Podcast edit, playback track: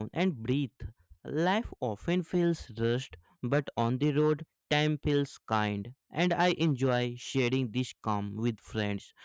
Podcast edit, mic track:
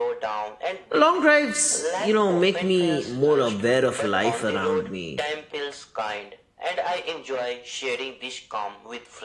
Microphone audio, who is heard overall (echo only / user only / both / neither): both